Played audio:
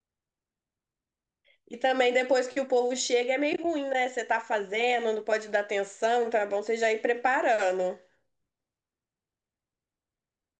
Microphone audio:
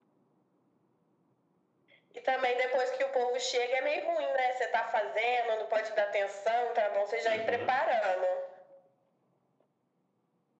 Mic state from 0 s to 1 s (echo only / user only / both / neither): neither